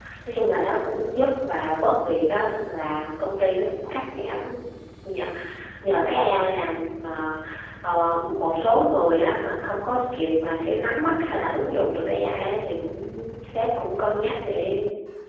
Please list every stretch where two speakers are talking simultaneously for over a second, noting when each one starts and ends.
none

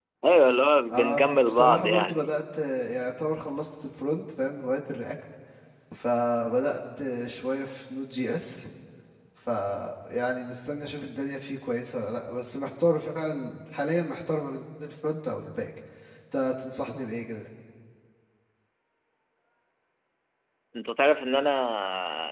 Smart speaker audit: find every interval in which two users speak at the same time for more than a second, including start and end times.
0.9-2.2

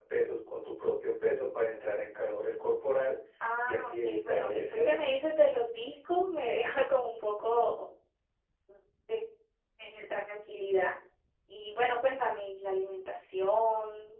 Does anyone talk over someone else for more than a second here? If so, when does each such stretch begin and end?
3.6-5.1

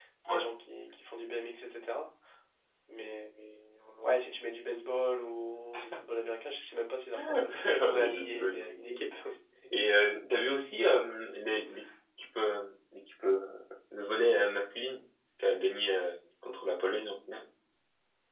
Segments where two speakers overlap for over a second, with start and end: 7.3-9.0

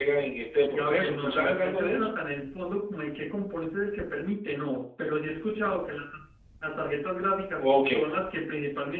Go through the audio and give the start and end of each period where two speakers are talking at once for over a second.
0.7-2.1

